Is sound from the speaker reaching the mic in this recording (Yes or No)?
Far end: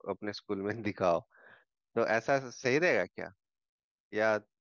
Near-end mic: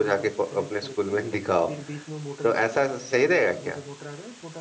Yes